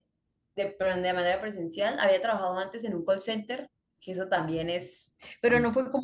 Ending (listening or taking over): listening